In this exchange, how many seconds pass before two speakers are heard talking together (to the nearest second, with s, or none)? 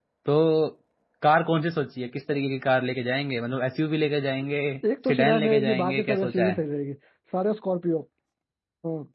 5 s